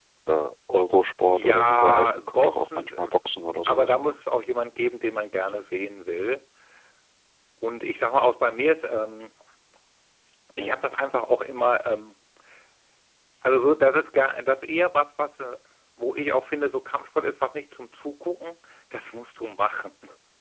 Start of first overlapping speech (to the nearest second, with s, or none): 1 s